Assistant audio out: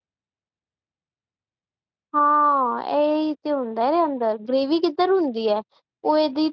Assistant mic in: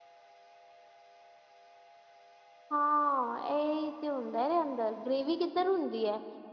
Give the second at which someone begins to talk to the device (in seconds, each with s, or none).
none